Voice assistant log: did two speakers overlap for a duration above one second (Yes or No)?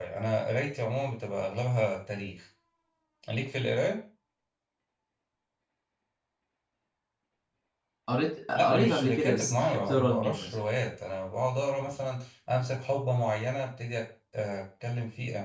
Yes